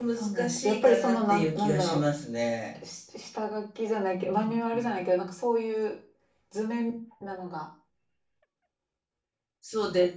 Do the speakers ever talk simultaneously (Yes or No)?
Yes